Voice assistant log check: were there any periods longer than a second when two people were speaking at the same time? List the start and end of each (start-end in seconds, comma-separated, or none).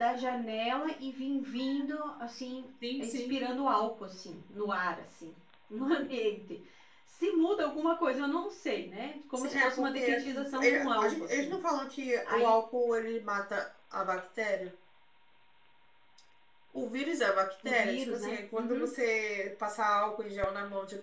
9.4-11.5, 17.6-18.9